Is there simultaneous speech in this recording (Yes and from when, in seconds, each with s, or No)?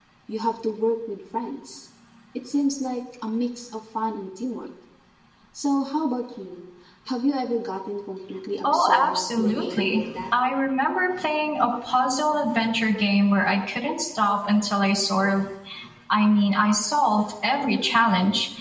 Yes, from 8.6 s